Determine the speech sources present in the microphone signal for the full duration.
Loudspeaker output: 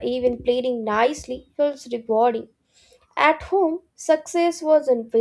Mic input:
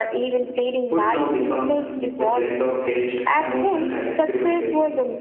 both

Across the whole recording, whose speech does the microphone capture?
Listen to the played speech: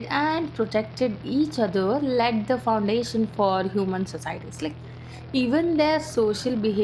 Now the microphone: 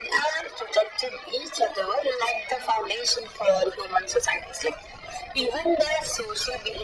echo only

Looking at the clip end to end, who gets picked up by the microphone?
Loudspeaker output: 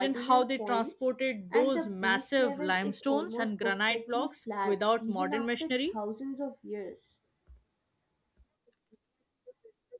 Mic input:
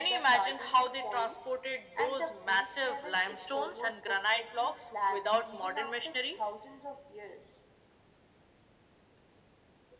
echo only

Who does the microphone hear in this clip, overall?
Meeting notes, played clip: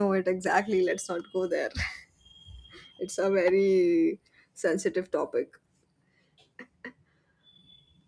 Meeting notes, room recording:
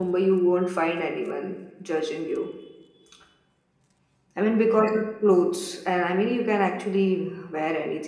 user only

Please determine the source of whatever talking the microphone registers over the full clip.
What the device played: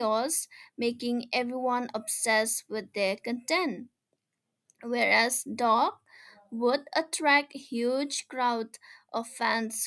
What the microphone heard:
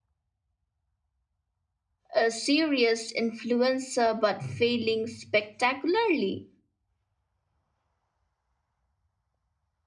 user only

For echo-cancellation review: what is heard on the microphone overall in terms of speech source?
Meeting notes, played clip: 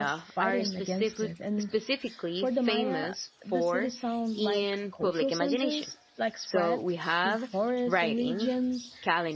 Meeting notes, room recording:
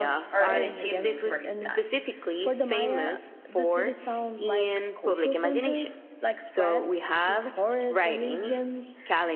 both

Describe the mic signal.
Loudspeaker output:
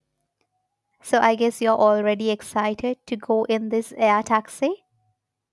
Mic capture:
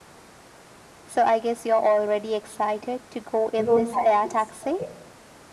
both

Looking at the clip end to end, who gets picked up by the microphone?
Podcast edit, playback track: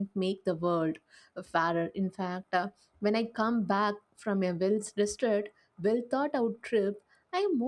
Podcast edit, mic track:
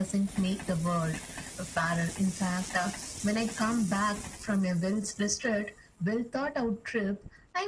echo only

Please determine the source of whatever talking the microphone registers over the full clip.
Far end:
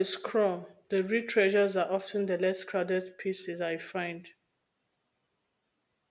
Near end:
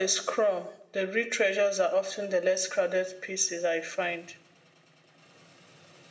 echo only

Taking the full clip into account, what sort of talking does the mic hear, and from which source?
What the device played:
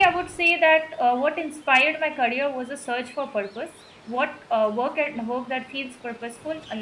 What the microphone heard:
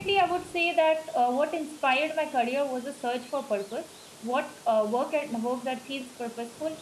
echo only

